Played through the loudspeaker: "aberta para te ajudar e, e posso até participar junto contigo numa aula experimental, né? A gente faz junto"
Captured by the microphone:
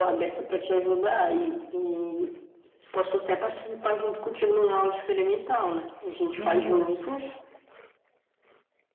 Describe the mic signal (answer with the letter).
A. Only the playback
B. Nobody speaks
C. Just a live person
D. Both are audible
D